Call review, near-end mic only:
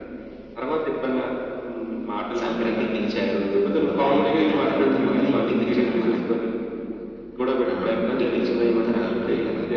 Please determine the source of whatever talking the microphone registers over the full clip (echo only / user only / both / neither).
echo only